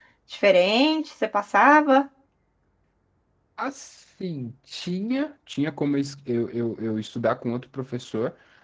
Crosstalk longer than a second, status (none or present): none